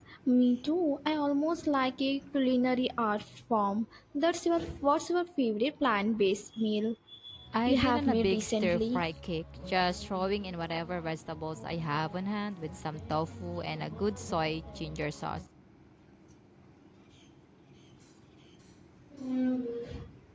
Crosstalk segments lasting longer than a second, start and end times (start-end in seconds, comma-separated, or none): 7.7-9.0